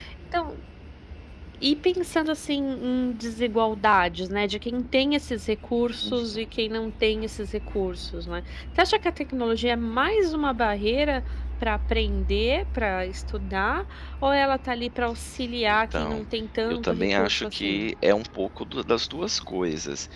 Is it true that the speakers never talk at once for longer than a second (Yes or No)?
No